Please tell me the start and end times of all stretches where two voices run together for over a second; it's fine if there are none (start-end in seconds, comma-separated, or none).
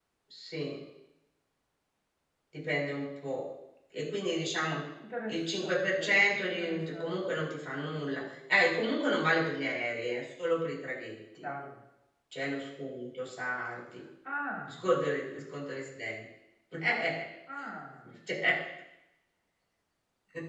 5.3-7.4